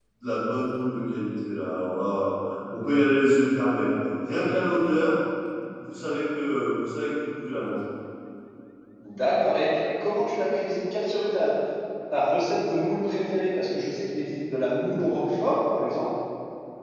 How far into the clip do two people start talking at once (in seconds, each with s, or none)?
none